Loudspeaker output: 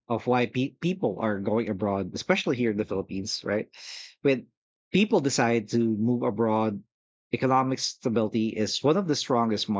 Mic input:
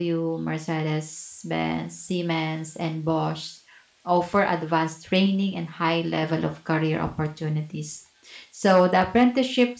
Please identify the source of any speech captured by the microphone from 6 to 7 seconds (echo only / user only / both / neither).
user only